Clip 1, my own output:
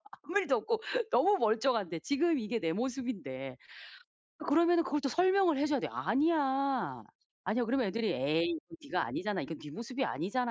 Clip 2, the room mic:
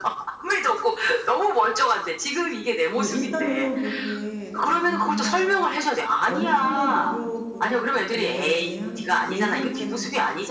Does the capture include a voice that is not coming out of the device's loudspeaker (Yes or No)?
Yes